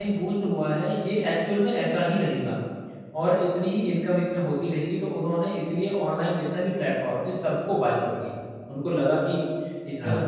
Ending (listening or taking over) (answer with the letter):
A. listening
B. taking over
A